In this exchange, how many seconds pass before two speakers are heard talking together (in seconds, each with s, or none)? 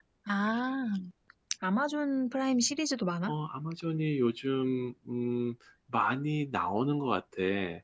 none